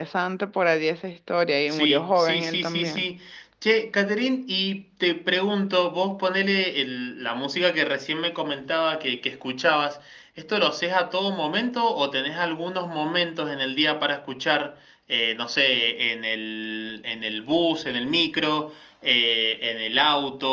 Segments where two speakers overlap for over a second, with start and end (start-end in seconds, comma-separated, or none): 1.7-3.0